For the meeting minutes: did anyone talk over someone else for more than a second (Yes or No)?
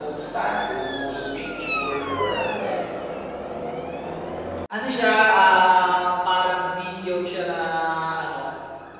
No